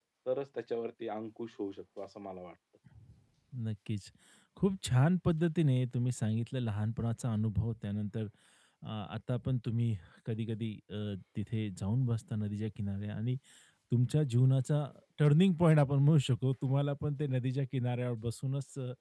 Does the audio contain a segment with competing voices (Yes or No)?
No